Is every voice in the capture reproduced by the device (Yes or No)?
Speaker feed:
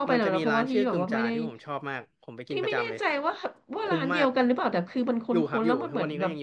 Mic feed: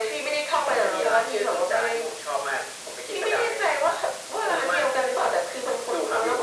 Yes